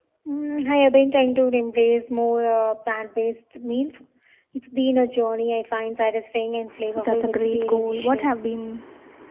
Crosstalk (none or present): present